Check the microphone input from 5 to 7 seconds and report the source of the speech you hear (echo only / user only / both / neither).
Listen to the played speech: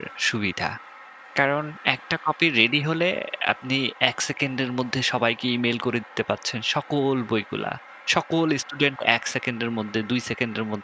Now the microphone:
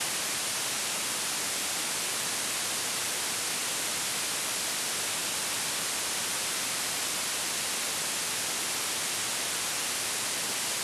neither